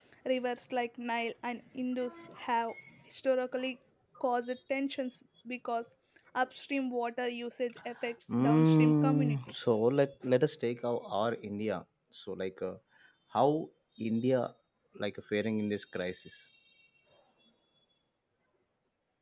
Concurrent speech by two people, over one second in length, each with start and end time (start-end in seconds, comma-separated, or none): 8.3-9.7